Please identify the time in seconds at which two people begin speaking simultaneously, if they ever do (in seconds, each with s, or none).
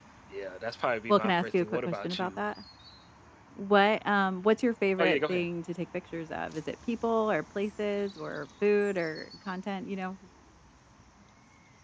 1.1 s